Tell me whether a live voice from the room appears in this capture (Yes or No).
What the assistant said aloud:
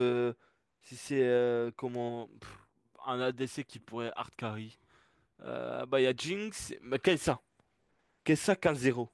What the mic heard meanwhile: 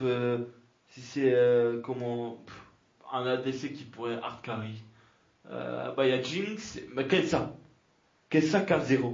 No